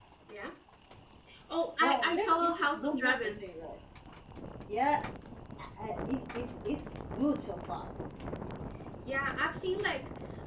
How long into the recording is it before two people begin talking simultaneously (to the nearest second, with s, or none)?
2 s